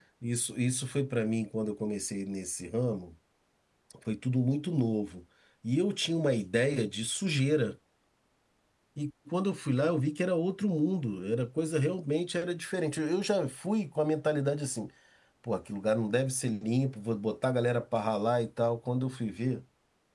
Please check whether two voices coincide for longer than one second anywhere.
No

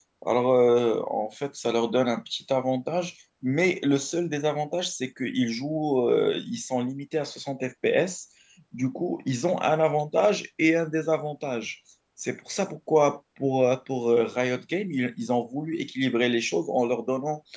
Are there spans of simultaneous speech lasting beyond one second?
No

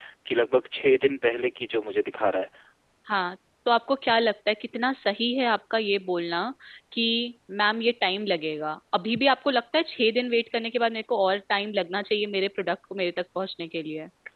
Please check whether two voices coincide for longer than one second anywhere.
No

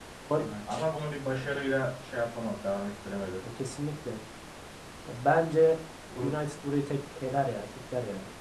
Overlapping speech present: No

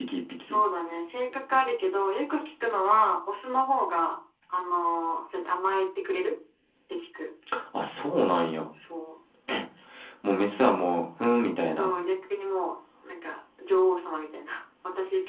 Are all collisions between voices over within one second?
Yes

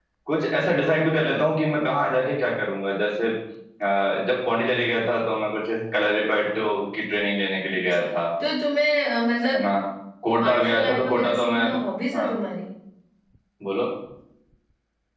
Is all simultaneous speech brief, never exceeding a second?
No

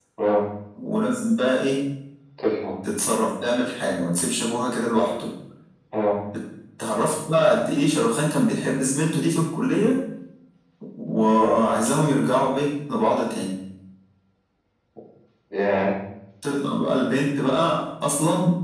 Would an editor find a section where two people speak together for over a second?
No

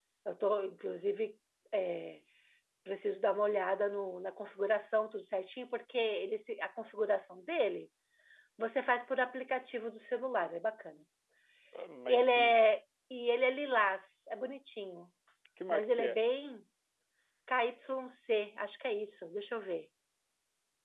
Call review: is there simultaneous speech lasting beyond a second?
No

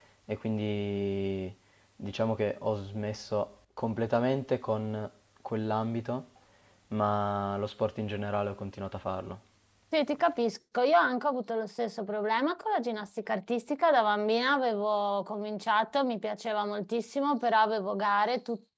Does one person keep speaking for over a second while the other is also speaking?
No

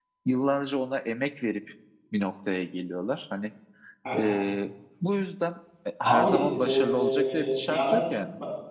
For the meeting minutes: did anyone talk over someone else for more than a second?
Yes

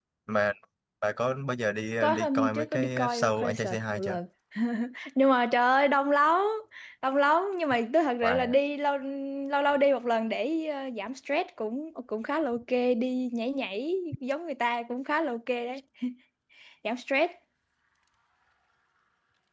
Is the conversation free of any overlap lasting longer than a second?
No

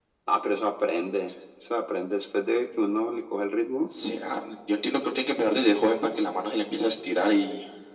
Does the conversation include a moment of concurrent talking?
No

